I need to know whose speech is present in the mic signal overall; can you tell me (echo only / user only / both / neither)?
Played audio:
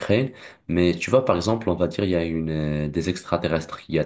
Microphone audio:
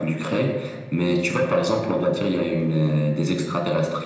echo only